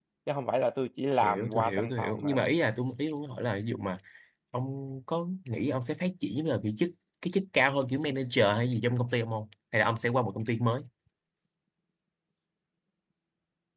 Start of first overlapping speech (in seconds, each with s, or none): 1.2 s